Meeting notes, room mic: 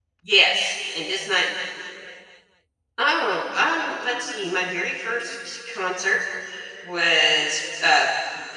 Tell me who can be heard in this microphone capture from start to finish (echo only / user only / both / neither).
user only